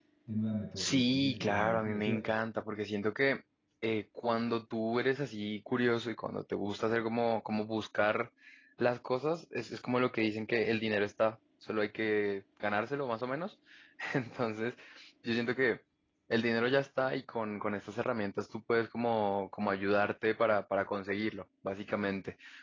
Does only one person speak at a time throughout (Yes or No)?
No